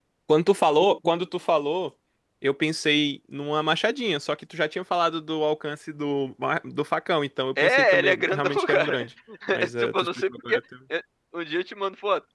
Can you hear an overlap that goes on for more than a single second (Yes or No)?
Yes